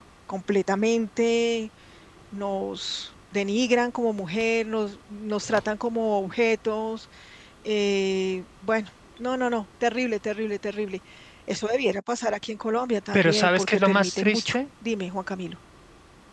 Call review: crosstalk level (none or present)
present